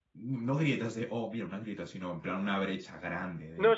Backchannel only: No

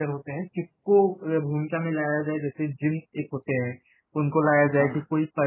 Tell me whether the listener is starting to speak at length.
No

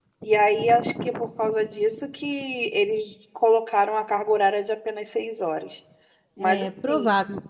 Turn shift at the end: Yes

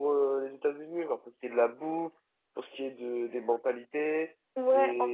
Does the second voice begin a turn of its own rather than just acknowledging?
Yes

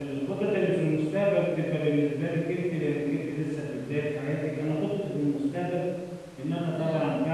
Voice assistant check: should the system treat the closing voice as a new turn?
No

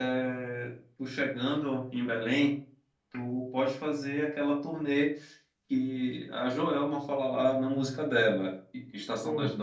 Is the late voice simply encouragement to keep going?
Yes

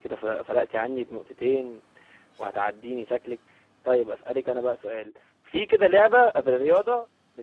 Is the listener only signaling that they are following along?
Yes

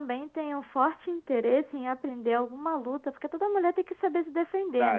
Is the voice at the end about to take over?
Yes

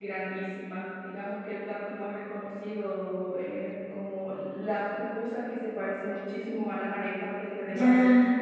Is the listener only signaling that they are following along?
No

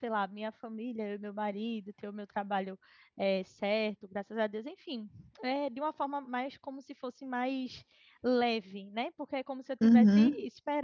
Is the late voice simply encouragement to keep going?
Yes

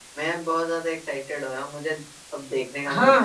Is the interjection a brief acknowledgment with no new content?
No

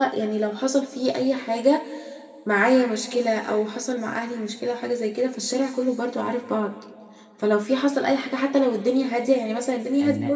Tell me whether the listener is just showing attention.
Yes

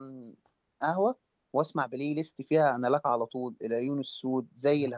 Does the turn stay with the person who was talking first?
Yes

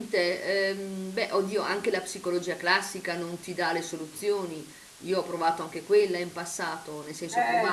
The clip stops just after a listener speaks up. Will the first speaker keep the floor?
Yes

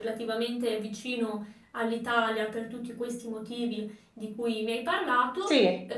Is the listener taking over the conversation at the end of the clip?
No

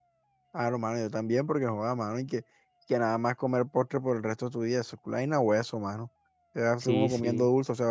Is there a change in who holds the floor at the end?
No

